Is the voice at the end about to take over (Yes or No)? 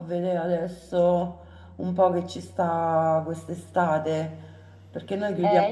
Yes